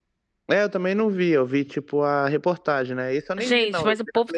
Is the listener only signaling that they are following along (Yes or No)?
No